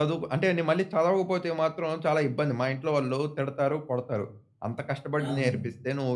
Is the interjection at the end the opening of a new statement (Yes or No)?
No